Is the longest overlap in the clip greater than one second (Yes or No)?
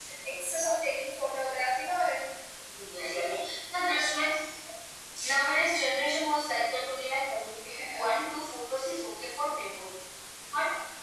No